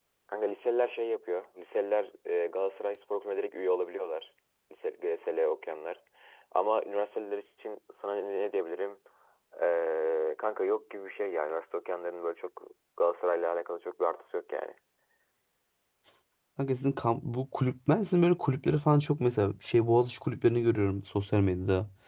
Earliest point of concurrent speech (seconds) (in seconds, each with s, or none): none